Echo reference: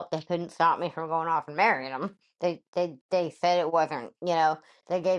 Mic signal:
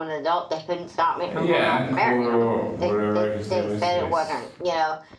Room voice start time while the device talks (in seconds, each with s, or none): 1.3 s